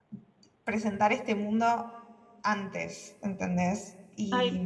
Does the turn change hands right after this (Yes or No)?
Yes